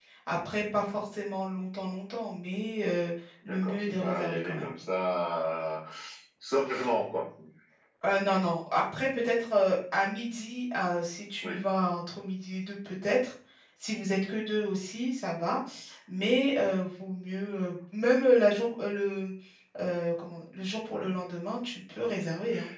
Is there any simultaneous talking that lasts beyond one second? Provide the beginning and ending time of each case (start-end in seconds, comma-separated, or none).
3.4-4.7